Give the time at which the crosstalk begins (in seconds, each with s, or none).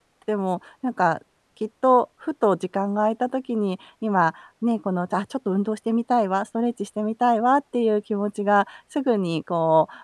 none